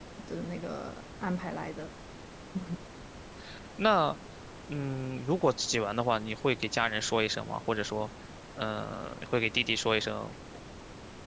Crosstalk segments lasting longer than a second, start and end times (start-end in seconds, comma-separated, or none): none